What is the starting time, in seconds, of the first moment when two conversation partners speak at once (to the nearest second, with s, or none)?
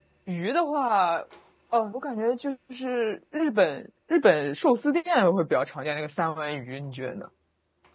none